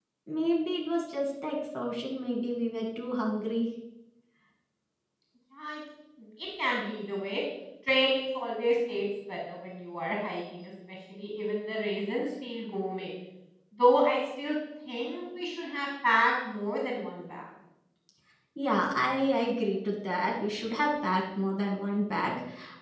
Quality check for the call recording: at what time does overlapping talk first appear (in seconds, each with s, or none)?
none